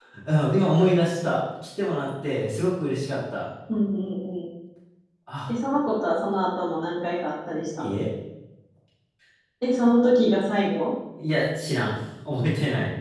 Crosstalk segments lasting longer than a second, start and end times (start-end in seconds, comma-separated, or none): none